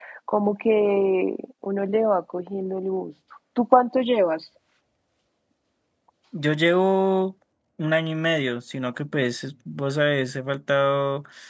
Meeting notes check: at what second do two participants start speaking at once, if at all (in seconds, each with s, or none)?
none